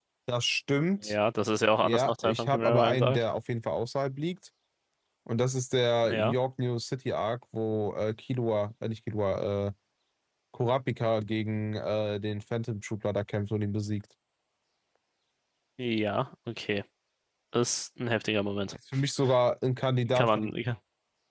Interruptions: present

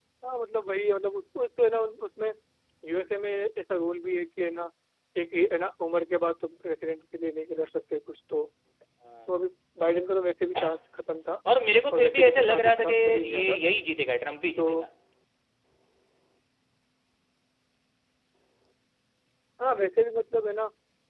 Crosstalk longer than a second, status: present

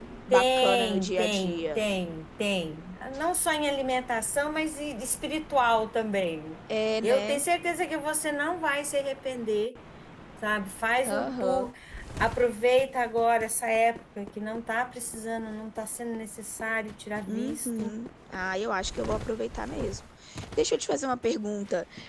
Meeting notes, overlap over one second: present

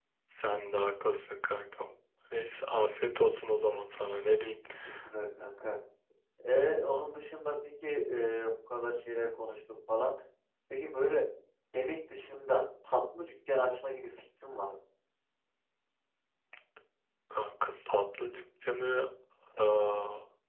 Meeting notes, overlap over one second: none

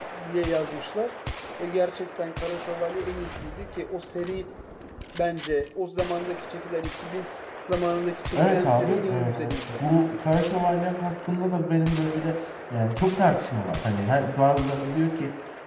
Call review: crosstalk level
present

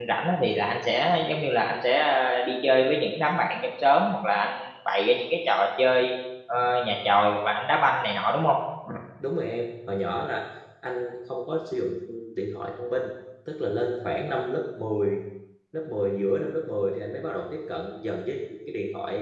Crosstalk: none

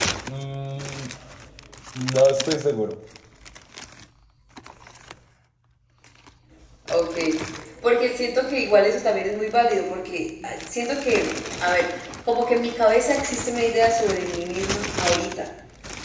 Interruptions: none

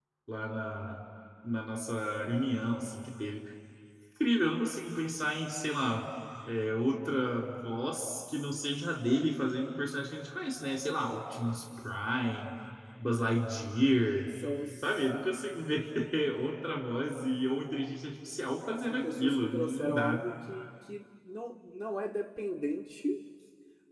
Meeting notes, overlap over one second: present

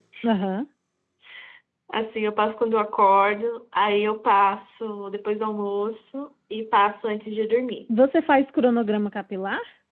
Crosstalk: none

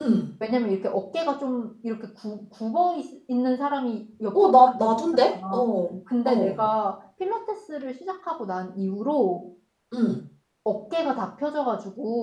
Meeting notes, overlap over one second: present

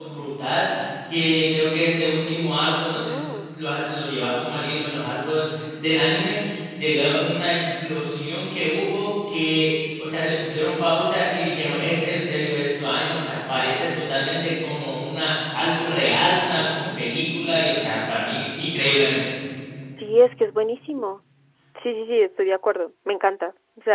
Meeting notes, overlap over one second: none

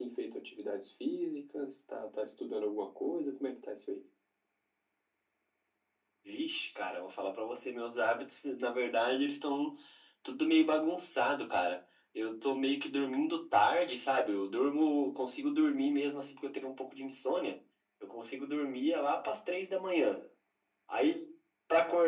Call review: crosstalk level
none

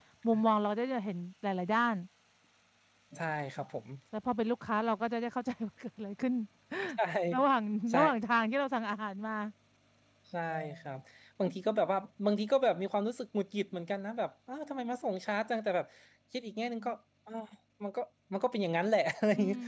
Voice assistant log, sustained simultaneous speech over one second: none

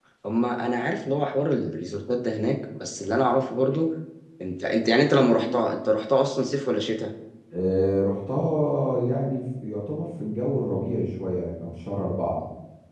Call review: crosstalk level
none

